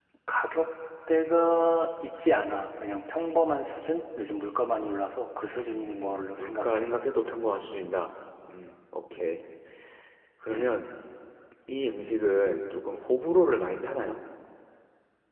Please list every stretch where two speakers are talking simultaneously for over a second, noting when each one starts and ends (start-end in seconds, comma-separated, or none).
5.7-6.9